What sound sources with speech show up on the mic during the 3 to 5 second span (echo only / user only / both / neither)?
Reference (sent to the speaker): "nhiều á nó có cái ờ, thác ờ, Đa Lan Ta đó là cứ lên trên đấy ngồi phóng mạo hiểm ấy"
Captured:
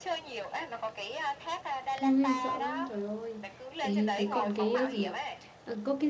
both